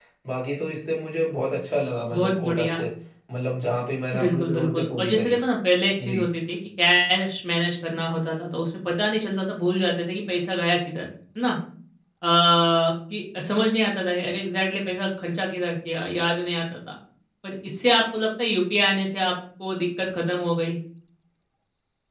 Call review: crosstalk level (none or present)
present